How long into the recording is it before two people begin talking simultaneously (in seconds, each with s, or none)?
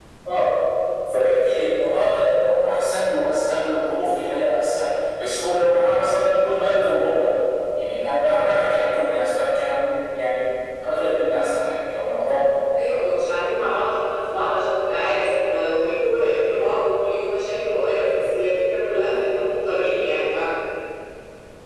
none